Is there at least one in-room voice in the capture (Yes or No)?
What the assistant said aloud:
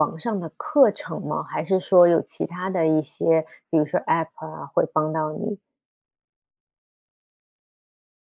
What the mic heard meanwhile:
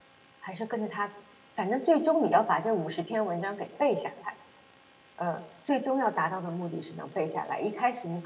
Yes